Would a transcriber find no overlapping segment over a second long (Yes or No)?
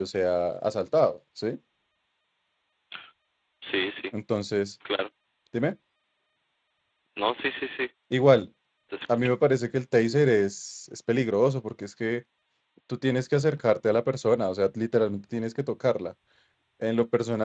Yes